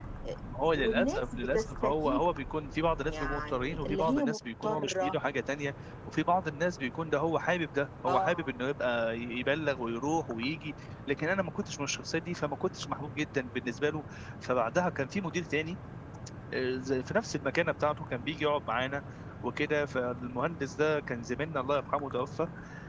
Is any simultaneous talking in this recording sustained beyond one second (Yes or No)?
Yes